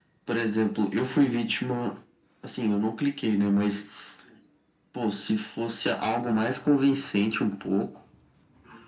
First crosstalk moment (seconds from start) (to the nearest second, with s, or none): none